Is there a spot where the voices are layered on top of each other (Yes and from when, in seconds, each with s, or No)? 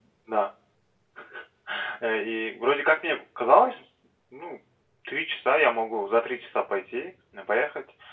No